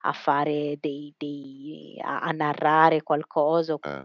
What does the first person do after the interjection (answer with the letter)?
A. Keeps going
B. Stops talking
A